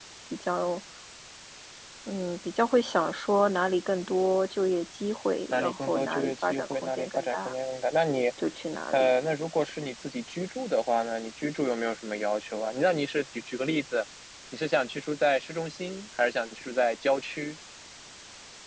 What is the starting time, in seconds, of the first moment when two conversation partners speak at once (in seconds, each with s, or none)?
5.5 s